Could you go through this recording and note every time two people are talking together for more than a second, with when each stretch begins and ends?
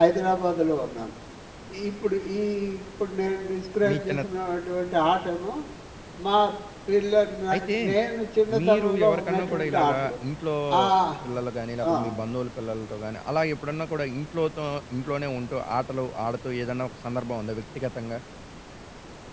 8.6-10.1

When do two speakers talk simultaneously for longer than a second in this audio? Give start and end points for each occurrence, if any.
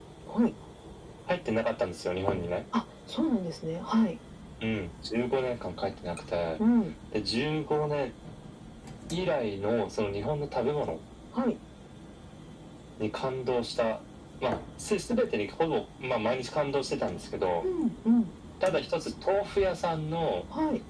none

